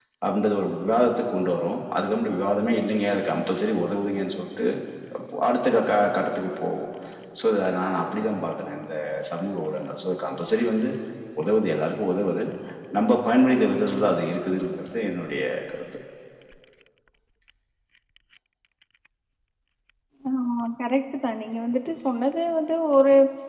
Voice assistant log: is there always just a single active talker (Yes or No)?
Yes